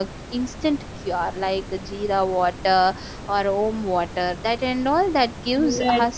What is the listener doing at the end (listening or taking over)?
taking over